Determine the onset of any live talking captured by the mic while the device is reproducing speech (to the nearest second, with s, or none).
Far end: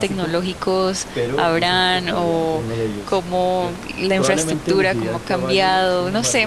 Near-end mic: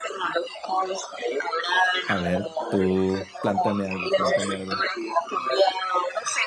2 s